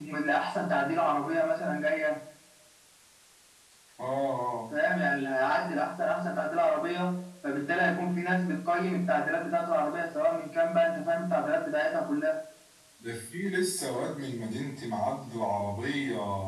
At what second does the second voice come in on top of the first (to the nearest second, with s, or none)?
none